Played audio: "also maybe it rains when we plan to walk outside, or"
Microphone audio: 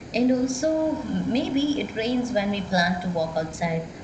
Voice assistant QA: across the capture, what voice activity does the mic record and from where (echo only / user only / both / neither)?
echo only